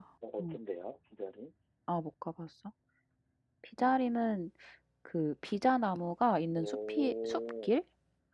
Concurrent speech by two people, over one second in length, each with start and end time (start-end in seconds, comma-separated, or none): 6.6-7.8